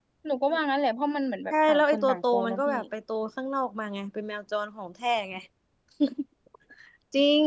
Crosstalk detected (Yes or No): Yes